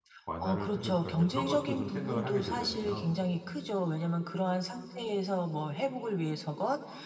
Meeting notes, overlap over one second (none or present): present